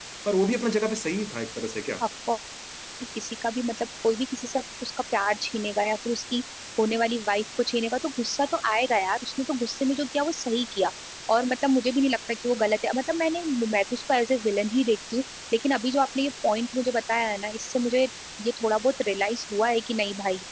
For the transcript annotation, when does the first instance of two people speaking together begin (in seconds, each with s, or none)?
none